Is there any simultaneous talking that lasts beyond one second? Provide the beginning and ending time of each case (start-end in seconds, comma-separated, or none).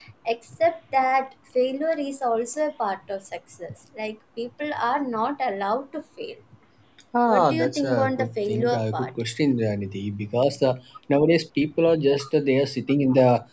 7.3-9.1